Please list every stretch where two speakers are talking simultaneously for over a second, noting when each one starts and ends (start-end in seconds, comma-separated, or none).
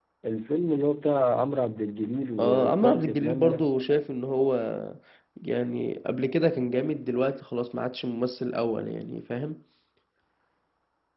2.4-3.7